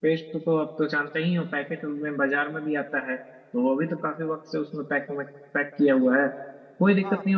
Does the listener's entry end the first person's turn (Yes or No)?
No